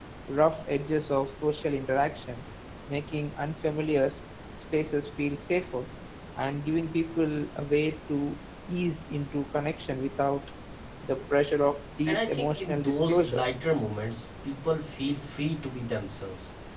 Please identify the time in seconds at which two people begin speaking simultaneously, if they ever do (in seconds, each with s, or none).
12.0 s